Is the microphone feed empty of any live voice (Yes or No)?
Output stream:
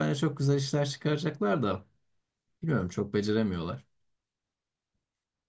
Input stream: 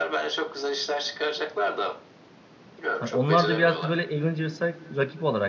No